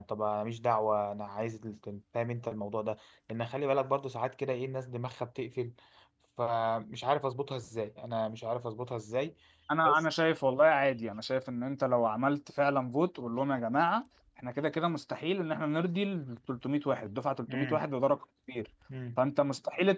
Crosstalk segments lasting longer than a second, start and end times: none

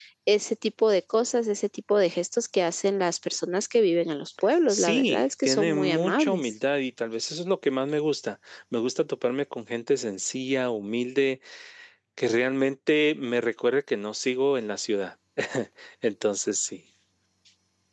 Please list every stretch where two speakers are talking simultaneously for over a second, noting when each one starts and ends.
4.7-6.5

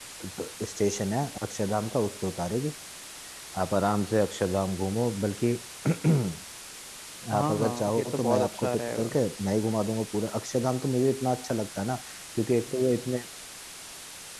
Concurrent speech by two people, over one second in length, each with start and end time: 7.3-9.2

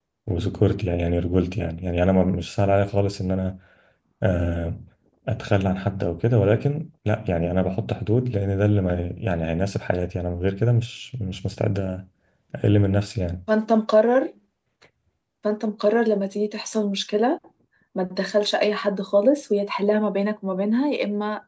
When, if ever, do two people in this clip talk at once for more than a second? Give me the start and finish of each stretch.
none

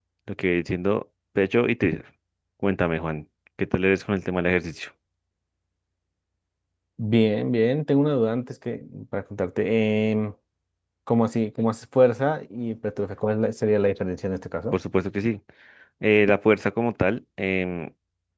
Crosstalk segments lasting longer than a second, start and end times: none

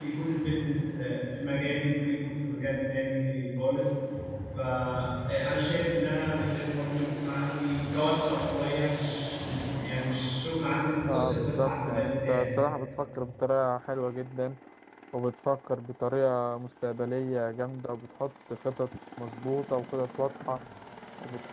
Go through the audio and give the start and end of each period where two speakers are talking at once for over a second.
11.1-12.5

